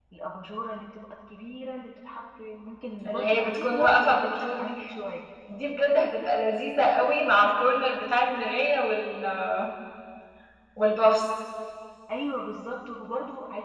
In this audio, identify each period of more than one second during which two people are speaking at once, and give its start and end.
3.1-4.8

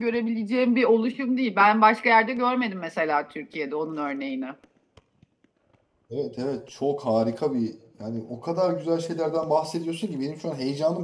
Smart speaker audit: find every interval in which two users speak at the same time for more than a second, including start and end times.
none

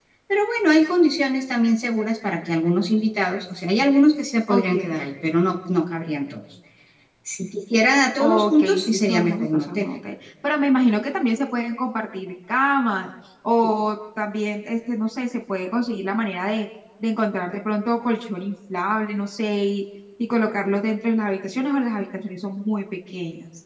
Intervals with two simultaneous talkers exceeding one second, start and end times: 8.2-9.9

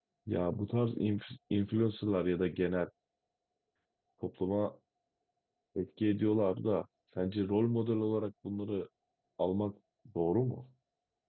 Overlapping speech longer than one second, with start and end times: none

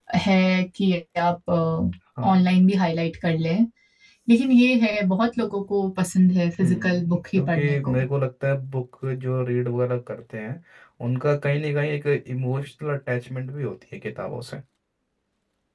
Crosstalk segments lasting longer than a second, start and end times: 6.6-8.0

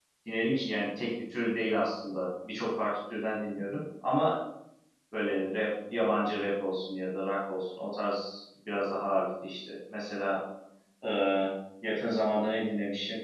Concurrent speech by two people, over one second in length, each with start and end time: none

